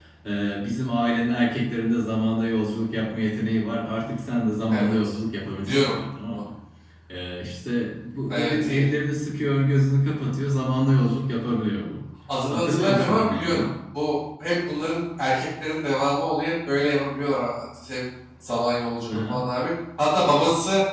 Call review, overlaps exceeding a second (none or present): present